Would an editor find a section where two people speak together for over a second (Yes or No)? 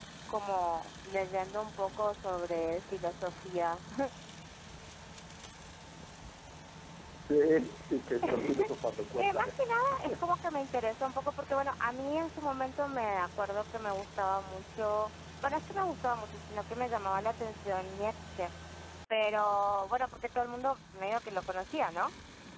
No